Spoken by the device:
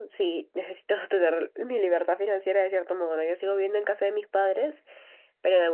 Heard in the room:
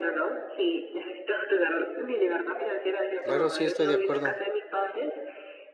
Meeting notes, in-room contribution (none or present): present